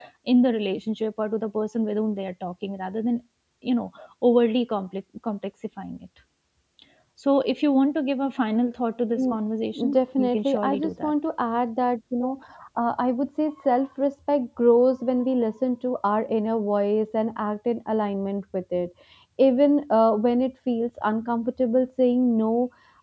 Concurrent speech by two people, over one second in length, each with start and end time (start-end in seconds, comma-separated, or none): 9.9-11.1